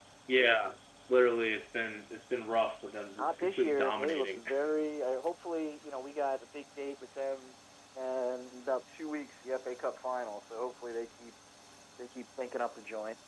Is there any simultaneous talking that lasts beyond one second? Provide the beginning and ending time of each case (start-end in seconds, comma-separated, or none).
3.2-4.4